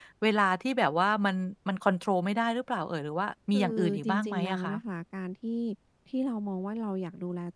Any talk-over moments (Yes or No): Yes